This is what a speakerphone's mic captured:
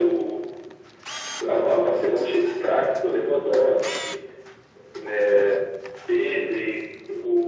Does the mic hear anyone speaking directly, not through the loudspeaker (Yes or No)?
No